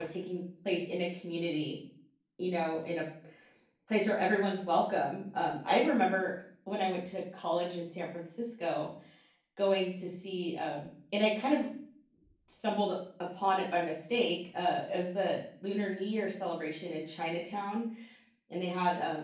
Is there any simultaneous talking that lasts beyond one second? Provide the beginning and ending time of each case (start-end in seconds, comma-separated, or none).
none